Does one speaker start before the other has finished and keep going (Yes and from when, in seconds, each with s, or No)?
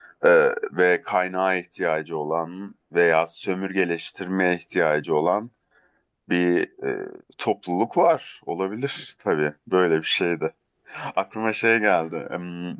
No